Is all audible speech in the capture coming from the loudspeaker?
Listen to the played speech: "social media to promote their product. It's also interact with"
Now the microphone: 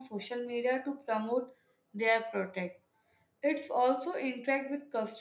Yes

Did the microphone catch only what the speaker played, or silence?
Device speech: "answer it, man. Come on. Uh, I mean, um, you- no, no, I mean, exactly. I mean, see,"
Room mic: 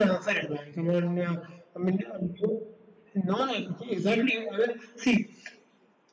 Yes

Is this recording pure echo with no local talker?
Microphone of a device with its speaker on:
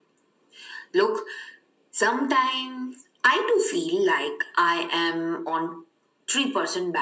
Yes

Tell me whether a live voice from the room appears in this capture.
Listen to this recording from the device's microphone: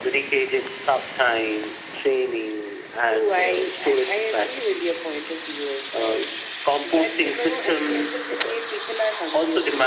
No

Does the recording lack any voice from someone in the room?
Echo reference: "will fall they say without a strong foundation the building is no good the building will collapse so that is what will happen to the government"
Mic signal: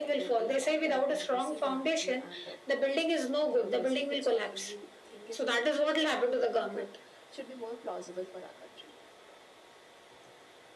No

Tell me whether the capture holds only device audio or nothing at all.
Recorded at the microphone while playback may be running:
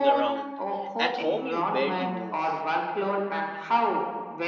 No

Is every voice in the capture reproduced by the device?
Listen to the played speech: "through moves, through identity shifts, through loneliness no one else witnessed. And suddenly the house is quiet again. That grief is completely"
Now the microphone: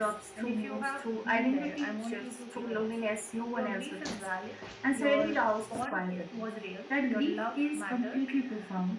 No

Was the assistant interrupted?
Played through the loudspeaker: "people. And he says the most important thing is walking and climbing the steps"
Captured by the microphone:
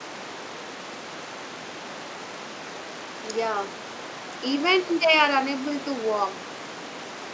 Yes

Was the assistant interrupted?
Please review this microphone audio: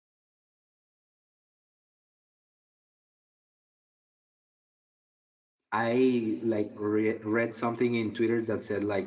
Yes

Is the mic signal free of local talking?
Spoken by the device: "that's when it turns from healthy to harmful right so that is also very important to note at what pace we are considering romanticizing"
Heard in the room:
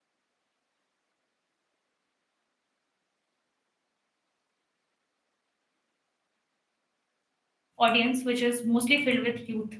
No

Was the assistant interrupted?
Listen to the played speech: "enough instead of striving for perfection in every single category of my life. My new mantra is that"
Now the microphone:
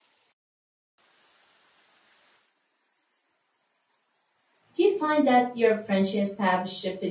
Yes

